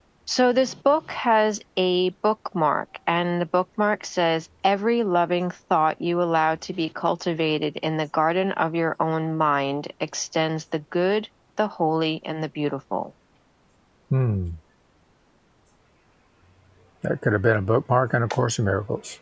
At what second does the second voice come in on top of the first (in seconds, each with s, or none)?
none